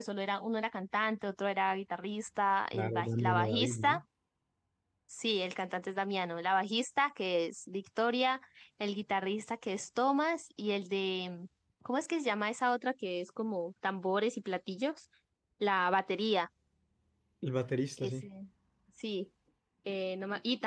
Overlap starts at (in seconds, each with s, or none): 2.7 s